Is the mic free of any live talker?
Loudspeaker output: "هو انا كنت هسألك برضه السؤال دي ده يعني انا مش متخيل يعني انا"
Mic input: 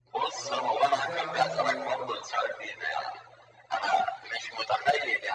No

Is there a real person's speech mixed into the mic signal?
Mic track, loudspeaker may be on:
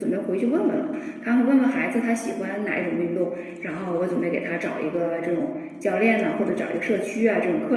Yes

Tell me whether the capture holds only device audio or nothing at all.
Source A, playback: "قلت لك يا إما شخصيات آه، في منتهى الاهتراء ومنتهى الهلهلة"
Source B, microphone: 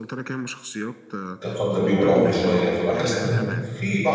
No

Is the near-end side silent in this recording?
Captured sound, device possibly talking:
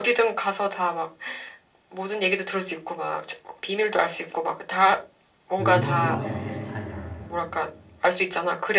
No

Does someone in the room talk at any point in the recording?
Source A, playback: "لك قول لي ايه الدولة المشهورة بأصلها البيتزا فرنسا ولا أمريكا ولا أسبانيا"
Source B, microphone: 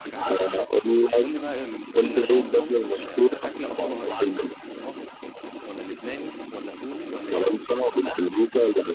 Yes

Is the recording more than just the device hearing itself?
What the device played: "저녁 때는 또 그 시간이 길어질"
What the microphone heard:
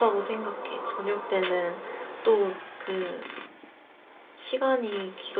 No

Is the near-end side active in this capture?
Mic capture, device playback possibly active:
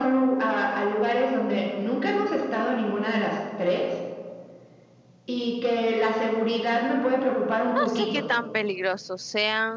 Yes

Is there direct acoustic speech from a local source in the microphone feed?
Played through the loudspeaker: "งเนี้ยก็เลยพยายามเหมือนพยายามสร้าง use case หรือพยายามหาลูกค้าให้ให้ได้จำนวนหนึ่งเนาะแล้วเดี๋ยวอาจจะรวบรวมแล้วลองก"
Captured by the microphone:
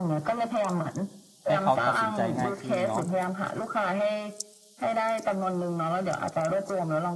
Yes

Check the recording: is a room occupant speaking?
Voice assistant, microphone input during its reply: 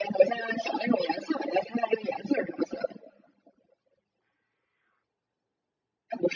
No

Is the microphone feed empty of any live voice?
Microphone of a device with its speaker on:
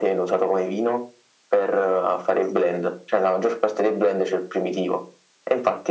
Yes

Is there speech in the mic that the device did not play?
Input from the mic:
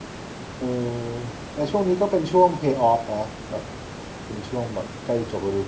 Yes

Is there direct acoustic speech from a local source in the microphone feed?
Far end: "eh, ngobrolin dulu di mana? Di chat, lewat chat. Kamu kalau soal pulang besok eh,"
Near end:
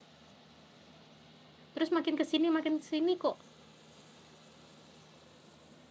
Yes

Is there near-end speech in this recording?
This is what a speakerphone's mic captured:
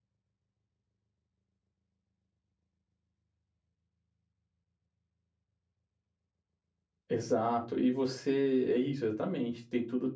Yes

